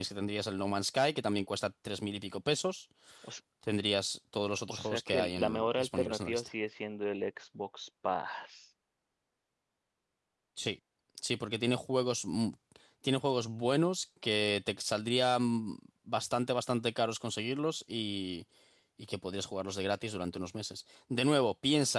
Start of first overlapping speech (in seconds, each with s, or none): 4.7 s